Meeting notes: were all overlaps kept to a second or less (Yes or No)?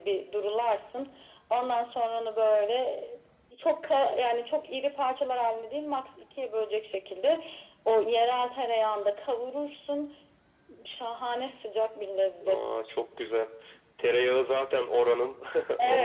Yes